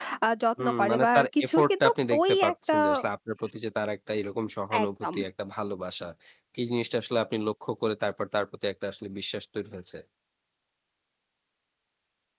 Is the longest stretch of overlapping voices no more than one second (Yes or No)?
No